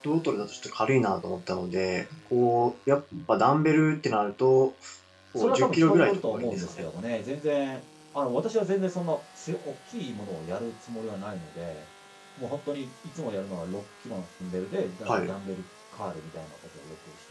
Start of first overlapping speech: 5.4 s

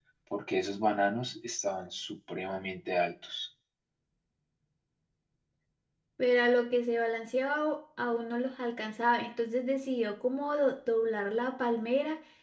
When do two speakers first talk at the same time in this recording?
none

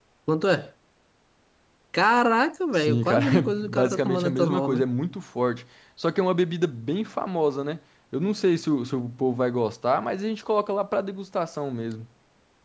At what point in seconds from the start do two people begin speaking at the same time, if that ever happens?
2.7 s

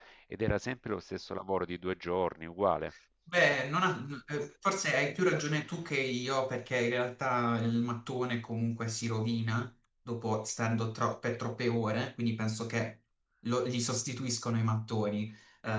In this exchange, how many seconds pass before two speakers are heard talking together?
none

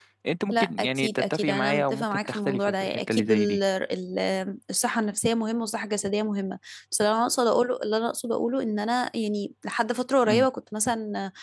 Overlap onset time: 0.5 s

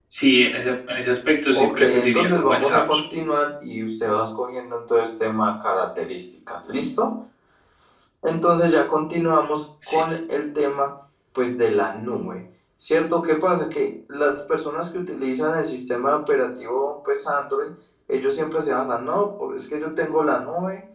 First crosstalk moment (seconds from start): 1.5 s

